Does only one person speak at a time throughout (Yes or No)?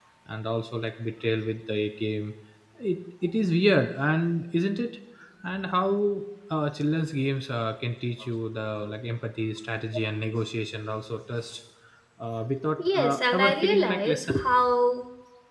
No